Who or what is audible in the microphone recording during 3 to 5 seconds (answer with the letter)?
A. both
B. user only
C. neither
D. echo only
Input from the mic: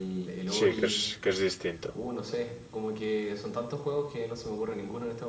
D